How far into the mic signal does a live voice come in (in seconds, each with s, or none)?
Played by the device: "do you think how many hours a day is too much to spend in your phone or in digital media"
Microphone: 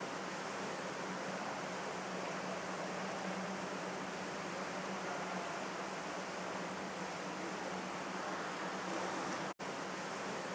none